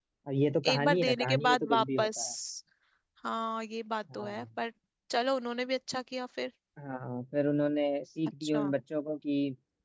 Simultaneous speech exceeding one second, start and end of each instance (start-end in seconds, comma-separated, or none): 0.7-2.2